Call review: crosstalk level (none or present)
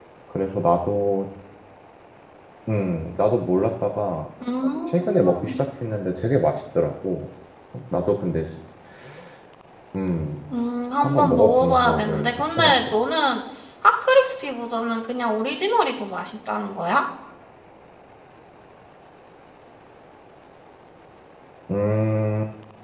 present